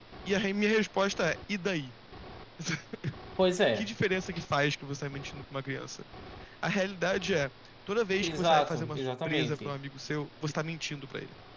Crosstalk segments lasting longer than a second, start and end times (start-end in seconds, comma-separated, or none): 8.2-9.7